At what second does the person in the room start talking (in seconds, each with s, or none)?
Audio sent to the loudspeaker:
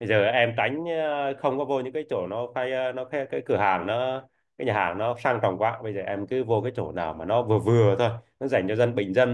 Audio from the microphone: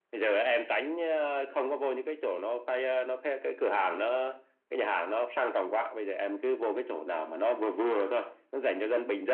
none